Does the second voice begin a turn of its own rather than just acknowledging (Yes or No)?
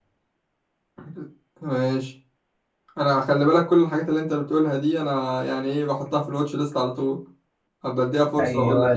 Yes